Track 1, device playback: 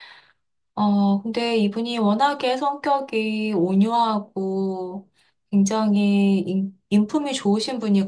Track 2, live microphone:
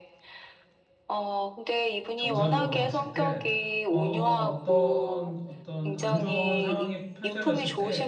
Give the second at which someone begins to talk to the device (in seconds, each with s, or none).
2.1 s